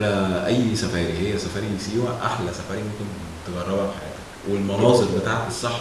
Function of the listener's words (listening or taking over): listening